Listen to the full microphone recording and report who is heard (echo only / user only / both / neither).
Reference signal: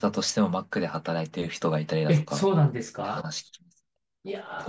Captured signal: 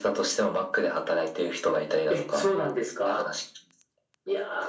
echo only